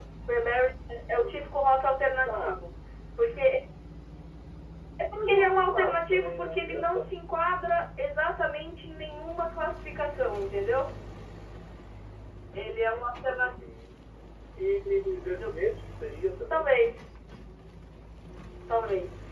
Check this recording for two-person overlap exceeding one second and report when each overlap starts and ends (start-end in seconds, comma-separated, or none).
5.3-7.0